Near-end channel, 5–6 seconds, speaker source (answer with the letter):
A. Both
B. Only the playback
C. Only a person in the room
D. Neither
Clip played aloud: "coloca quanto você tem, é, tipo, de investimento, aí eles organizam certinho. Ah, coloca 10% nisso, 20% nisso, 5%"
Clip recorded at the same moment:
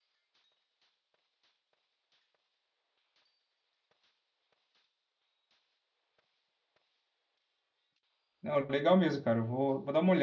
D